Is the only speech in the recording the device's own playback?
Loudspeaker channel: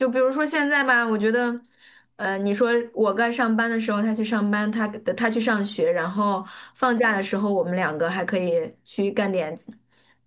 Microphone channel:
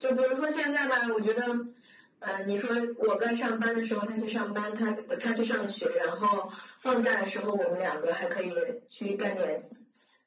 Yes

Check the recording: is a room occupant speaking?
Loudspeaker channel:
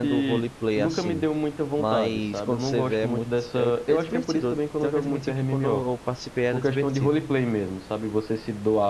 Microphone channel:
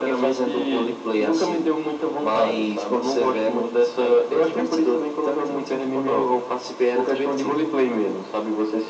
No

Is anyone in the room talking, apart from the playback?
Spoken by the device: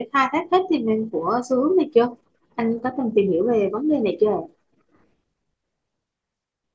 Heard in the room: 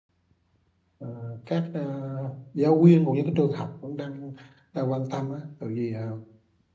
Yes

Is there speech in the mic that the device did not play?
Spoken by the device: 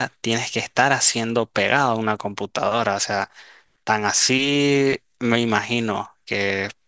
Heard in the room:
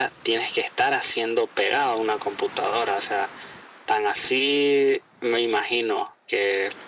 No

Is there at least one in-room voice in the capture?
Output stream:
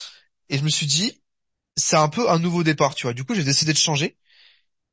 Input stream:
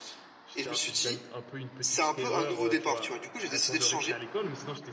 Yes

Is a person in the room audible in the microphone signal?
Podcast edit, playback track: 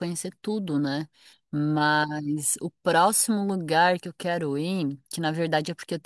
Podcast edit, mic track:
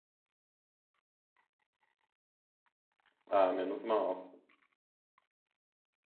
Yes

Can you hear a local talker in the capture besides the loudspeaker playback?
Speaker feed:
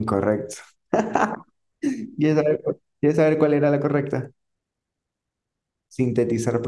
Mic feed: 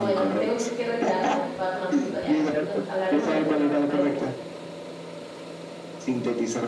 Yes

